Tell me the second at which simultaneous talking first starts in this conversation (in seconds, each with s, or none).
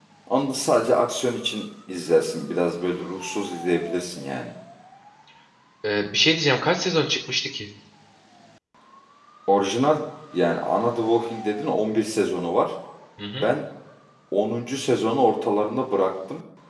none